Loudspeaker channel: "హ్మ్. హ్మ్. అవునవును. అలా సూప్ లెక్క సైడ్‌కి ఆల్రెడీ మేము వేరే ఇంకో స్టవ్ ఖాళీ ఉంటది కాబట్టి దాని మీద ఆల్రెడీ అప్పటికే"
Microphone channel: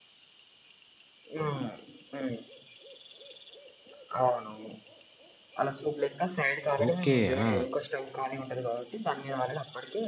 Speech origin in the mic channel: both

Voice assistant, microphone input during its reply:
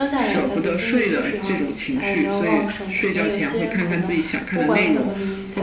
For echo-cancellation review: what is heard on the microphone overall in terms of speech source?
both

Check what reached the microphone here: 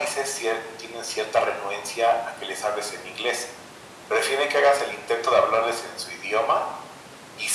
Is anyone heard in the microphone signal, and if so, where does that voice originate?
echo only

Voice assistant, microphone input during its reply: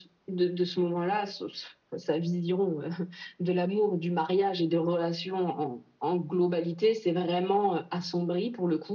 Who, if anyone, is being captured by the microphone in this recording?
echo only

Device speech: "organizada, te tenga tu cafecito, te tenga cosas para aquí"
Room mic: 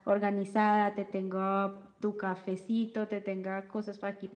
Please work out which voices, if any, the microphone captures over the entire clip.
echo only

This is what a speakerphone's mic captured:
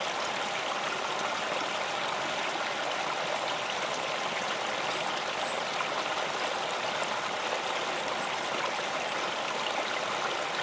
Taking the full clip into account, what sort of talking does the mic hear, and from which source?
neither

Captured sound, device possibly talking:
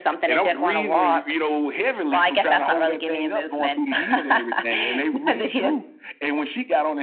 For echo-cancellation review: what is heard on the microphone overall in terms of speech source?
echo only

